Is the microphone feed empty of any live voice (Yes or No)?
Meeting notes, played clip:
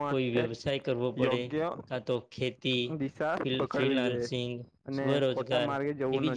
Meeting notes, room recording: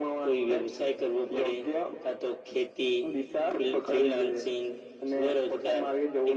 Yes